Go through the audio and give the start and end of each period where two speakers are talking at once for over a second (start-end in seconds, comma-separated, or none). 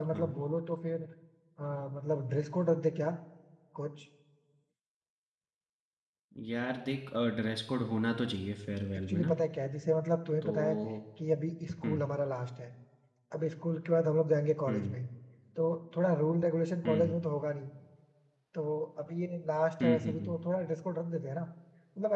none